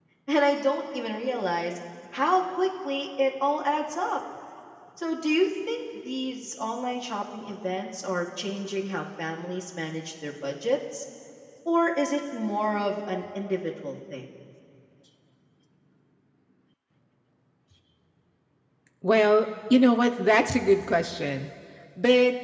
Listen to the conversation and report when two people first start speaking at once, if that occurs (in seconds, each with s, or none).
none